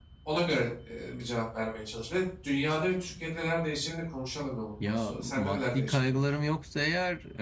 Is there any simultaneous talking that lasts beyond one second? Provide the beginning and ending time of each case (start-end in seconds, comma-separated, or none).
4.8-6.2